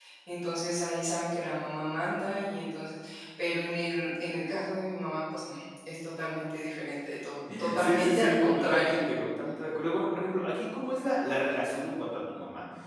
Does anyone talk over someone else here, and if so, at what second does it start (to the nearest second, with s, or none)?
8 s